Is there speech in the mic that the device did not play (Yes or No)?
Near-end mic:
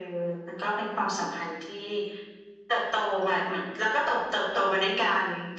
No